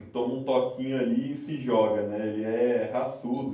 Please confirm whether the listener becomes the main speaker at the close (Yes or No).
No